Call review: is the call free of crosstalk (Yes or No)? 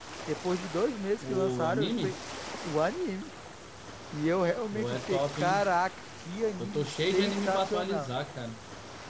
No